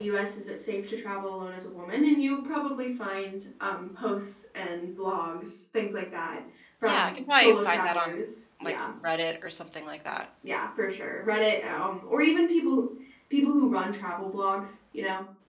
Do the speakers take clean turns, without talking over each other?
No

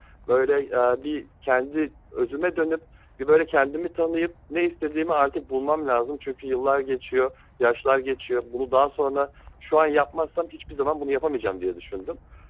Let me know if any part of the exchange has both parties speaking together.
No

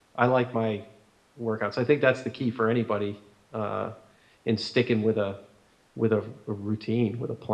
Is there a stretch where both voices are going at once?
No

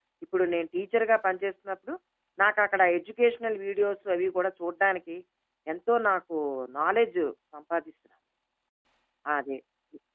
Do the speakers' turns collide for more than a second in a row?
No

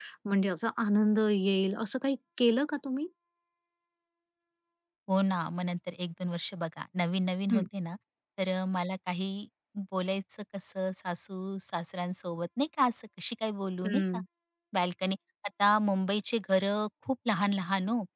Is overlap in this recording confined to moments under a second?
Yes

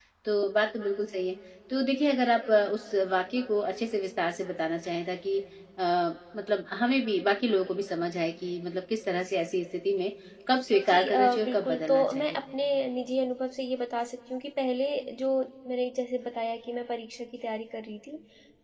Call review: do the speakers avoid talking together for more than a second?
No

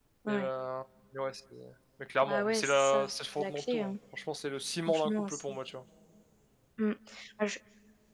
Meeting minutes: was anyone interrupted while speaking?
Yes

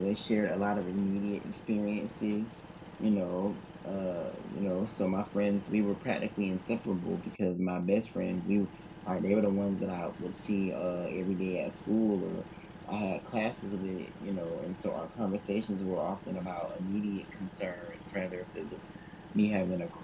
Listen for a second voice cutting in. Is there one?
No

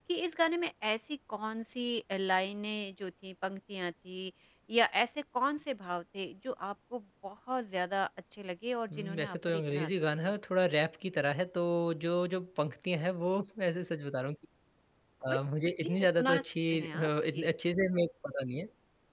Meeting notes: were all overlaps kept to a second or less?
No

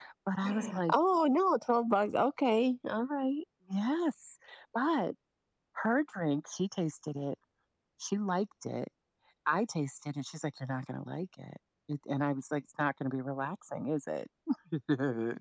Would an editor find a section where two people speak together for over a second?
No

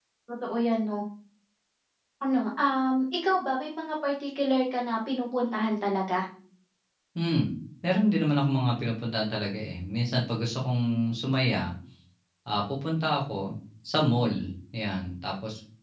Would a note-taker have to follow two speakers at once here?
No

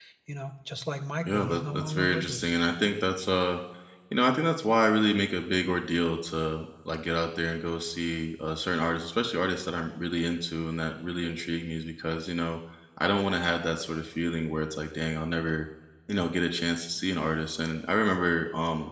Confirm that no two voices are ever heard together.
No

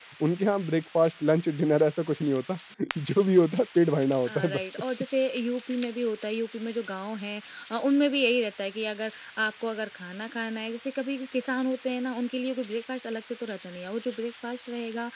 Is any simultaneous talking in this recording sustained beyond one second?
No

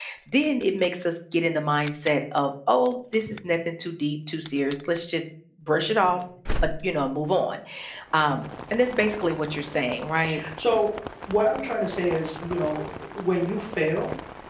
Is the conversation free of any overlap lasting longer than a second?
Yes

